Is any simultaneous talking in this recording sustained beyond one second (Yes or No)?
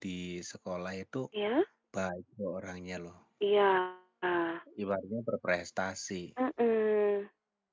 No